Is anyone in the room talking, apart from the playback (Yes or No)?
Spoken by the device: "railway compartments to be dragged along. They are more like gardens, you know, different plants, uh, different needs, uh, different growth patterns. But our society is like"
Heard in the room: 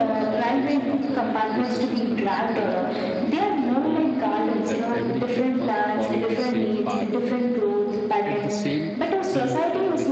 Yes